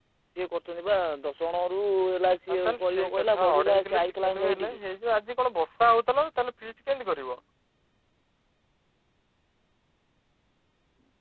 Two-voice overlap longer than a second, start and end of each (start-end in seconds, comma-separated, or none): 2.5-4.8